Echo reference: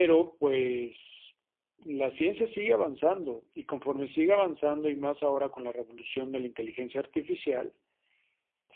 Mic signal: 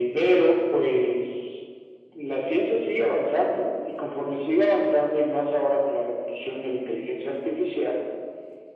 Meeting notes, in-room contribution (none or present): none